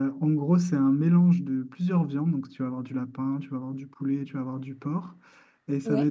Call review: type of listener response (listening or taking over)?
listening